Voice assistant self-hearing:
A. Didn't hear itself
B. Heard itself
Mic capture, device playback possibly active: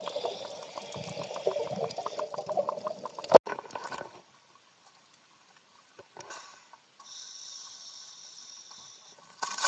A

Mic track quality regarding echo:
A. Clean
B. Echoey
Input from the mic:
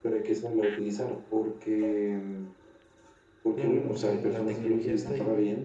B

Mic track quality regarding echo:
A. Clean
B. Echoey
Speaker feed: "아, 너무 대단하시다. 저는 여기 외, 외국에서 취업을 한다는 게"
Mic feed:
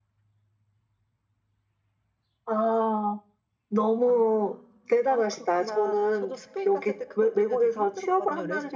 B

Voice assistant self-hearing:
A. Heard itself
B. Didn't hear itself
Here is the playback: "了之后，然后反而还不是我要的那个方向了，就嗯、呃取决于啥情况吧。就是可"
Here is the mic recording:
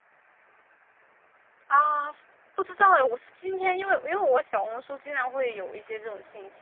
B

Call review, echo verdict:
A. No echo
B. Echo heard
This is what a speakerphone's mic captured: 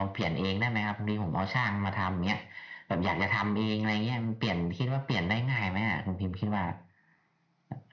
B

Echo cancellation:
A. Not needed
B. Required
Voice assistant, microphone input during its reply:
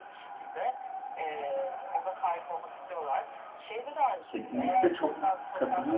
B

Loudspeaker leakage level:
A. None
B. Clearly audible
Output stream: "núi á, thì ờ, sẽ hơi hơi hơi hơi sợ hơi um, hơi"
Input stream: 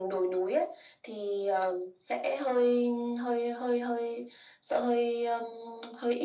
B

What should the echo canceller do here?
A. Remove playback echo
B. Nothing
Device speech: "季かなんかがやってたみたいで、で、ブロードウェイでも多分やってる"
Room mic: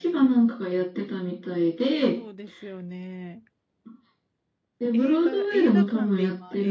A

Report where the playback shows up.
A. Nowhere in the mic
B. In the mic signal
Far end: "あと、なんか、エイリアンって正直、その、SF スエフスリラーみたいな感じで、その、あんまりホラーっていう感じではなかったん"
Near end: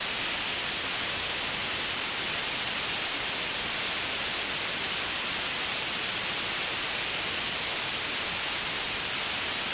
A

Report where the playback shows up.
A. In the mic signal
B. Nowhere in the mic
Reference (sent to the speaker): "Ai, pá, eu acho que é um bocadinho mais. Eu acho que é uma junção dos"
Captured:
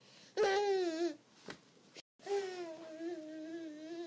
B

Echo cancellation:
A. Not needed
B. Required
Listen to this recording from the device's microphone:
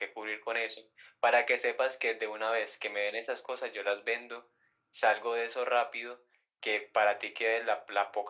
B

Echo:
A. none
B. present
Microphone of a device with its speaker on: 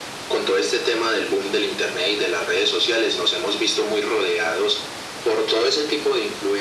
B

